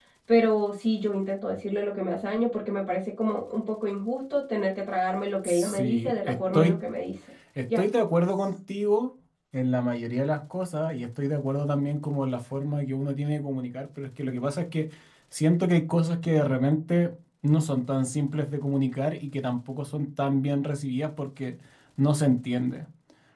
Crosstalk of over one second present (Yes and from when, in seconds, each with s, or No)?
Yes, from 5.4 s